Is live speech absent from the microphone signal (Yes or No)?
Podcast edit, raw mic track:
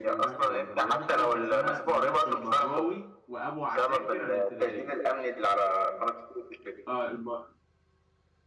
No